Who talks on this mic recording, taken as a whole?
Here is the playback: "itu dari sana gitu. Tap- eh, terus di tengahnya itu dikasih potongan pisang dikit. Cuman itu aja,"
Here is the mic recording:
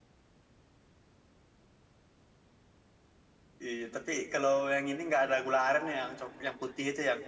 user only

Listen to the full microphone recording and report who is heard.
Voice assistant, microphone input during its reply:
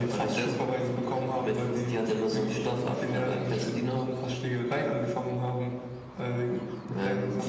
echo only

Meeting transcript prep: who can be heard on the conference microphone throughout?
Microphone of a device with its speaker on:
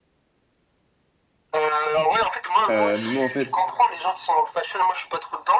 both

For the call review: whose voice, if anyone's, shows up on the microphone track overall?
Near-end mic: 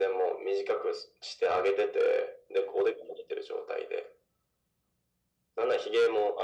echo only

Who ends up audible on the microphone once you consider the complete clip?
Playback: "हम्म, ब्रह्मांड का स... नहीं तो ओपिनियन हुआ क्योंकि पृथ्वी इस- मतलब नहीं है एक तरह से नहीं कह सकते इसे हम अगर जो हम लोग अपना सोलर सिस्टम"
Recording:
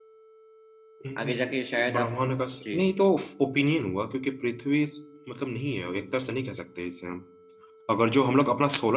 both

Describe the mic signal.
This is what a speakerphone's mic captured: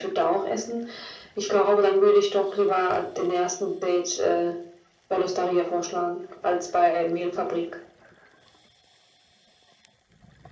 echo only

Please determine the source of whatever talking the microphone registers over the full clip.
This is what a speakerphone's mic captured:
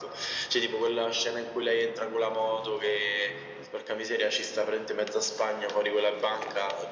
echo only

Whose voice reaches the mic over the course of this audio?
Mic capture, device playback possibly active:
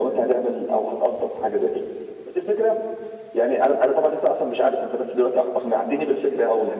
echo only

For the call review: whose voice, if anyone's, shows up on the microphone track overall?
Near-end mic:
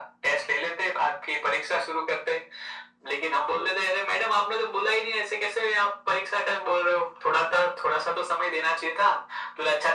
echo only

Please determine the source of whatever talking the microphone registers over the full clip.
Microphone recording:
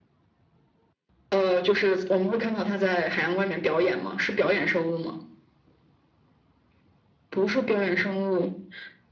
echo only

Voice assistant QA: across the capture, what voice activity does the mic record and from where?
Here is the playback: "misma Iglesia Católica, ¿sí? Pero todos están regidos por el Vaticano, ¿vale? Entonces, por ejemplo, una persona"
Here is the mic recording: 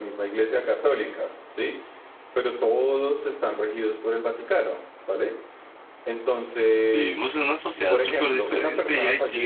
both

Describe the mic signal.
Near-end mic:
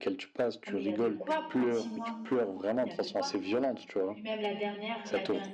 both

